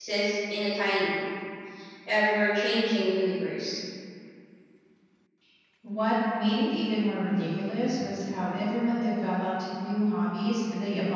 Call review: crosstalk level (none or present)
none